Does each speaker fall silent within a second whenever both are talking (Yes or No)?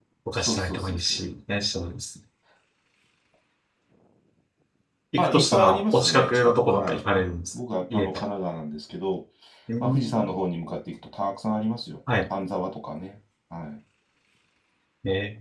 No